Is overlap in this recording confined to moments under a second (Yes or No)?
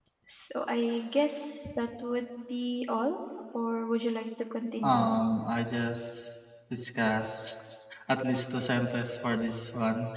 Yes